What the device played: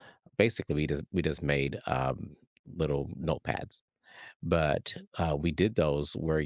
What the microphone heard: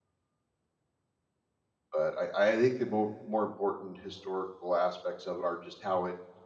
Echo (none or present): none